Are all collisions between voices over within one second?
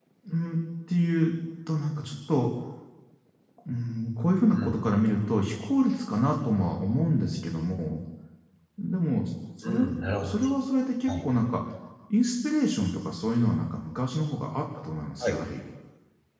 Yes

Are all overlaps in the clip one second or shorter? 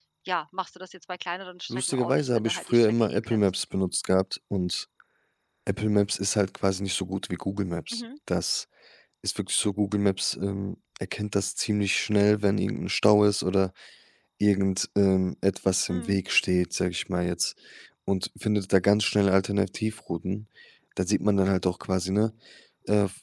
No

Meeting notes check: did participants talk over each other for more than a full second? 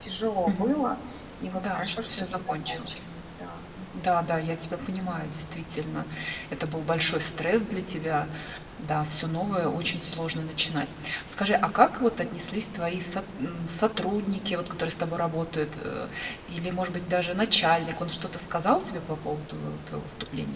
Yes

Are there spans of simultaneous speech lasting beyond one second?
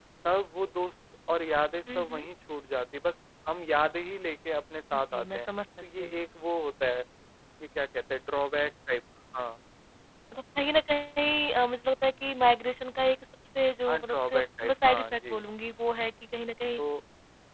Yes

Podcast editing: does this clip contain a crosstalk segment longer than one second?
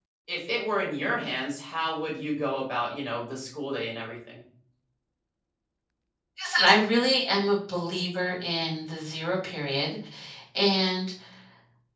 No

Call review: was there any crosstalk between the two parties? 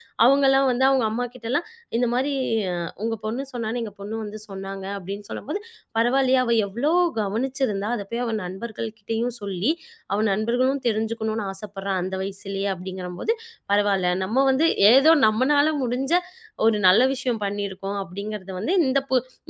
No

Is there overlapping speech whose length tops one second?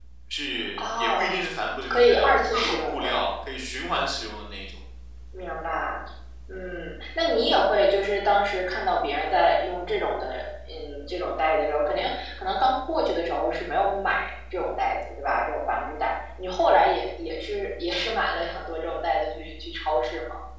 Yes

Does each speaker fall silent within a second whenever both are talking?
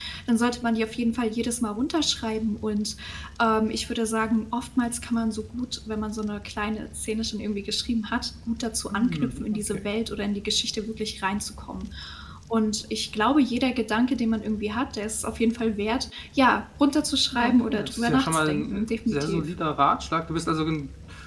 No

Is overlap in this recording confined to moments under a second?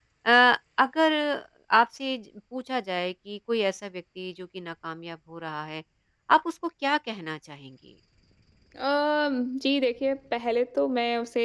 Yes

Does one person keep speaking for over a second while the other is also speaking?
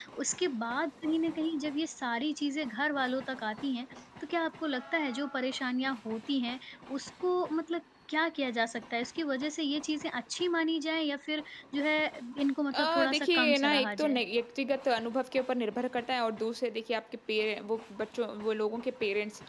Yes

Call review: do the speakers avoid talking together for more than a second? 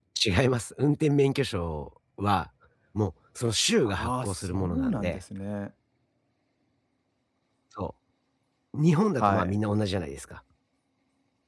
No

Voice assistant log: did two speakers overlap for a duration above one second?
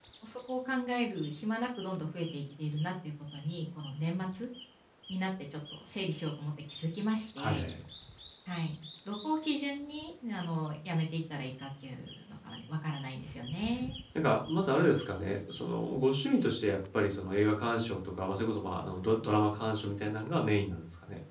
No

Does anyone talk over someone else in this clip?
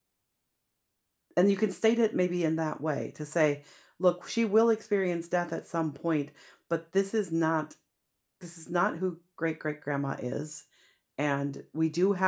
No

